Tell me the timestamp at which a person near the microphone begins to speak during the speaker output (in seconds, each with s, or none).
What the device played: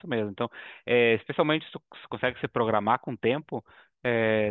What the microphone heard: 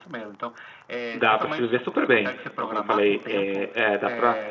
1.1 s